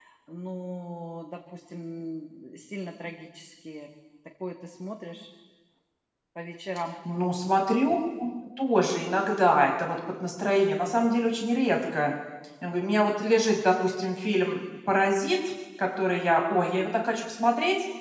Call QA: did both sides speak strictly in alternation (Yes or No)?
Yes